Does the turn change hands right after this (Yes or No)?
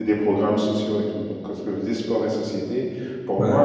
No